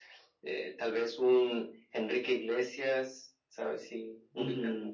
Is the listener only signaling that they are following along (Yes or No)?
No